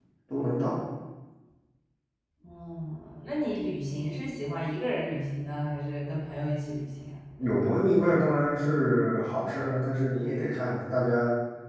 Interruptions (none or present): none